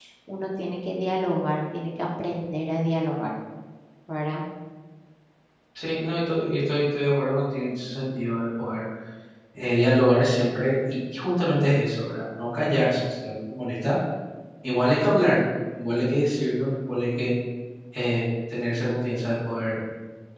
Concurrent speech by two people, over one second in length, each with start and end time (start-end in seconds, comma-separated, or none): none